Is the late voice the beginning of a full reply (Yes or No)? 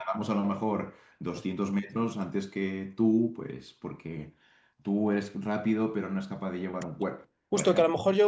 Yes